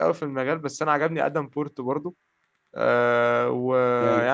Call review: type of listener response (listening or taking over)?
listening